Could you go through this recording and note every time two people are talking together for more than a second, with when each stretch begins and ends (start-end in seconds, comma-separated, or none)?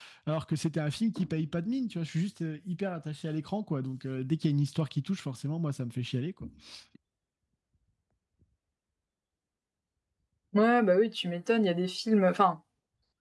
none